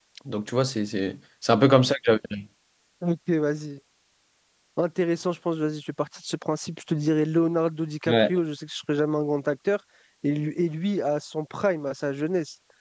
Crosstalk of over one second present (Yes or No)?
No